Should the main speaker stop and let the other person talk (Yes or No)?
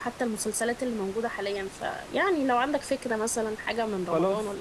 Yes